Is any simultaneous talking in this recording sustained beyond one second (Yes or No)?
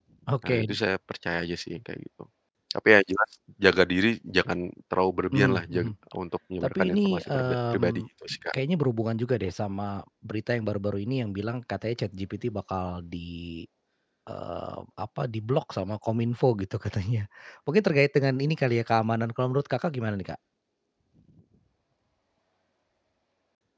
Yes